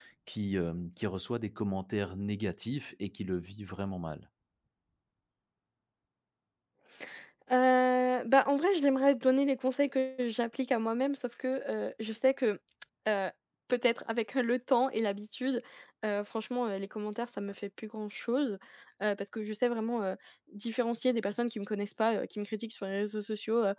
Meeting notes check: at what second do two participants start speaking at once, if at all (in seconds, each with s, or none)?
none